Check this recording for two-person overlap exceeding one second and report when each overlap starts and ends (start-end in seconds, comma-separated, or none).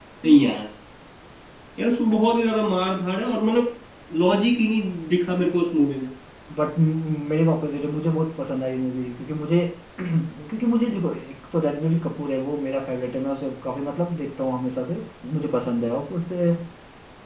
none